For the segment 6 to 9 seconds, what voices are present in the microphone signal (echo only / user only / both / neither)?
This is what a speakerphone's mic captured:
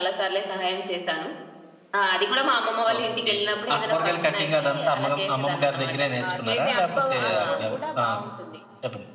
both